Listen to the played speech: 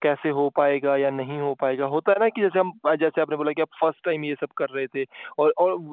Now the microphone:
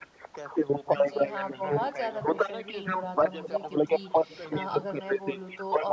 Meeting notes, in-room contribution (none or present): present